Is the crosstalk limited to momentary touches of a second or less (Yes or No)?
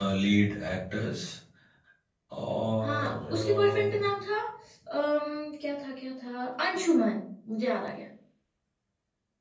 No